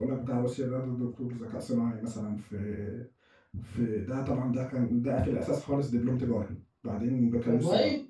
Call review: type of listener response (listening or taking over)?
listening